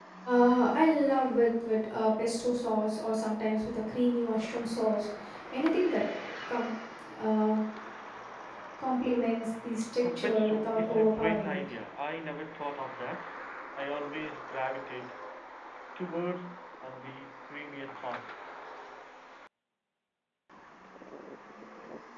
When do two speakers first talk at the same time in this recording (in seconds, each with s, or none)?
10.0 s